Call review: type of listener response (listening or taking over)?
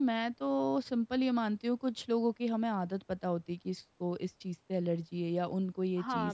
taking over